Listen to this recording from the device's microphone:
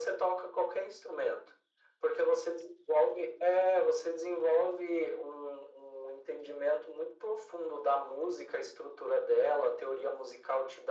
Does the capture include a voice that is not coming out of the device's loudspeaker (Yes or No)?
No